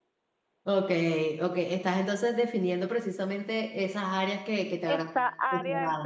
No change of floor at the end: No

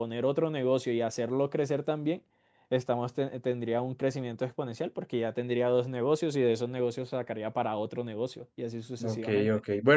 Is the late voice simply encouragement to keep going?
No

